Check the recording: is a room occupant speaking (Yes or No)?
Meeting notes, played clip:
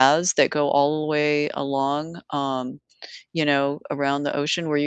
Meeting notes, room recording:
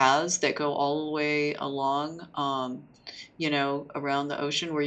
No